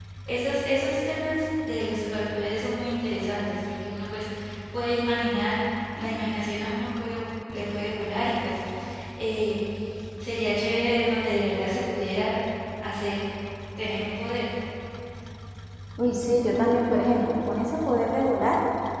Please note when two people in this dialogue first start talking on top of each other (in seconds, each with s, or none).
none